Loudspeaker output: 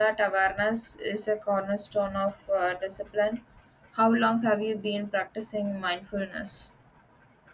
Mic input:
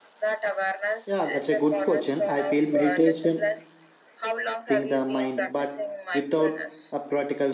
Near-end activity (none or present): present